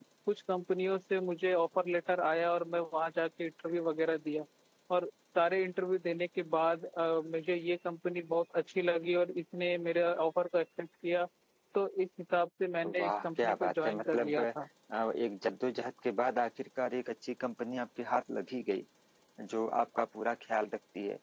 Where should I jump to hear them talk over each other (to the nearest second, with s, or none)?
13 s